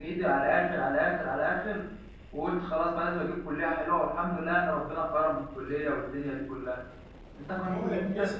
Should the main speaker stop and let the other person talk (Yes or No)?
Yes